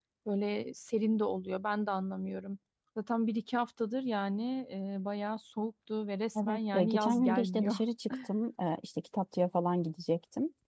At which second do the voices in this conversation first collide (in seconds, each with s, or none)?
6.3 s